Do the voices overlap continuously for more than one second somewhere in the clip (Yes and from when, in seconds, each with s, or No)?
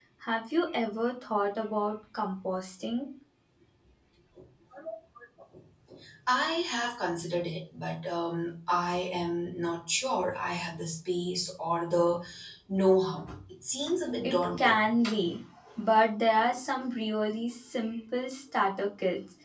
No